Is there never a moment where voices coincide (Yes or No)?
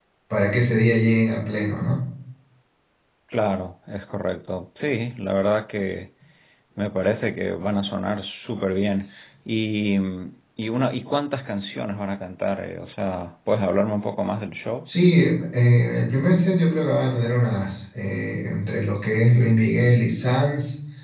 Yes